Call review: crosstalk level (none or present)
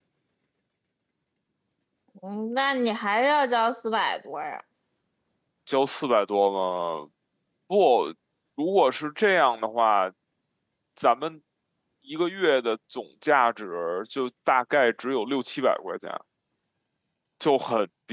none